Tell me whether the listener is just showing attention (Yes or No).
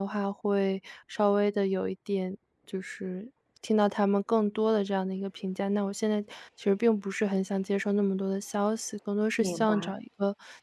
Yes